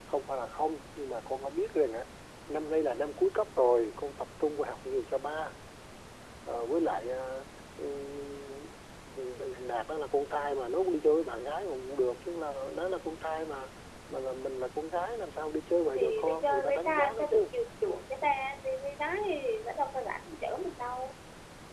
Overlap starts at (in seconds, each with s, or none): 15.9 s